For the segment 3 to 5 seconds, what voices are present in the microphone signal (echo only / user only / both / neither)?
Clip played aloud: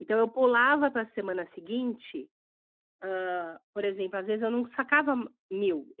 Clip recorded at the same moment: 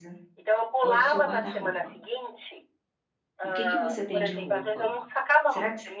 both